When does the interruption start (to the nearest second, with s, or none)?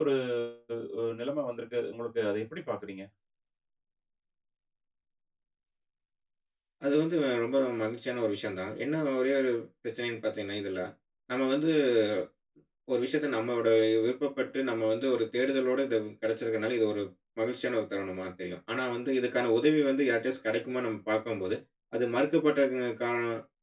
none